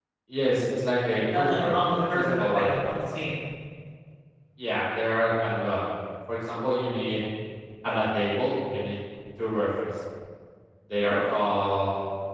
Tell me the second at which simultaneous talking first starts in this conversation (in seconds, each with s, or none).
1.4 s